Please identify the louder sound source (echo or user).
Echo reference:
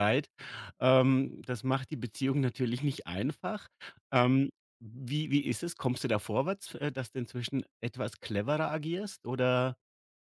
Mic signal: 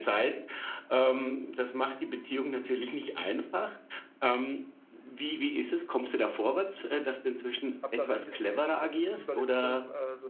echo